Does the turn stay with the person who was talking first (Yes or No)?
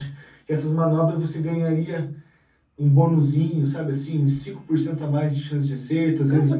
No